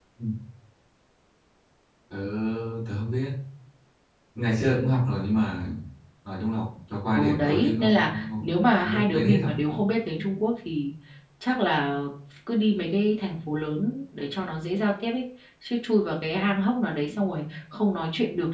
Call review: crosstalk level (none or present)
present